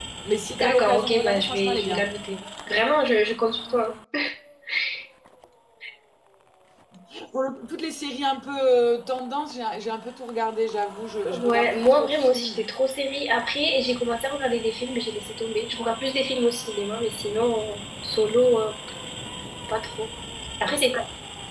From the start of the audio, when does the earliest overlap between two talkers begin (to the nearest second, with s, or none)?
1 s